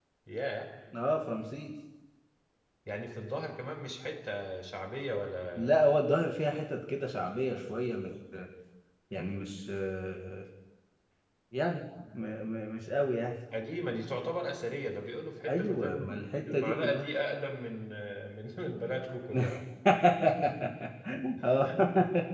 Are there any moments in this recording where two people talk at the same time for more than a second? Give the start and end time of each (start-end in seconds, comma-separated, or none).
15.5-17.1